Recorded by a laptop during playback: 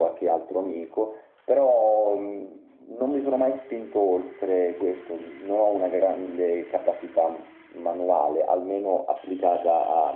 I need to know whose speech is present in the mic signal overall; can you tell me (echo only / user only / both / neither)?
echo only